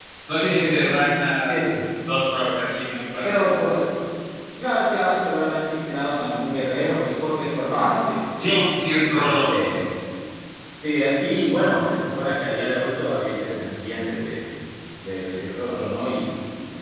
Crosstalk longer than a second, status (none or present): none